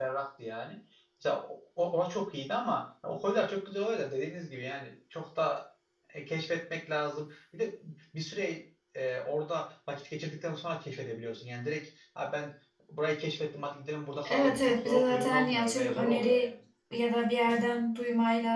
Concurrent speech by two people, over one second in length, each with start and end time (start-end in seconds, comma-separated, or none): 14.2-16.5